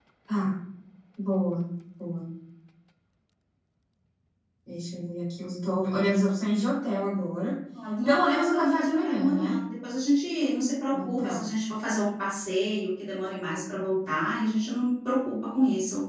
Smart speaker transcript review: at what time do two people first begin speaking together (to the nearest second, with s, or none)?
8 s